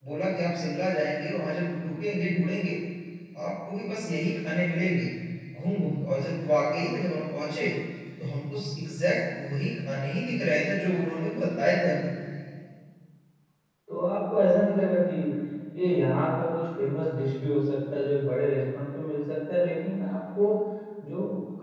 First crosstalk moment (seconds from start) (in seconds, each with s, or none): none